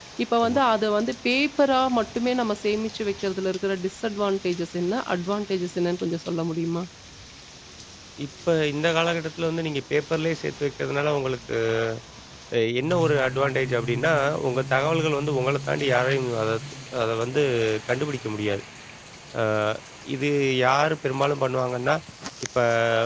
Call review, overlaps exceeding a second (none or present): none